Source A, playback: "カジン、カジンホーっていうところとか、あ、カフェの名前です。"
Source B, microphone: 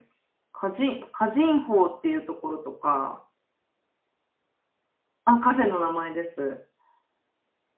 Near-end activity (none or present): none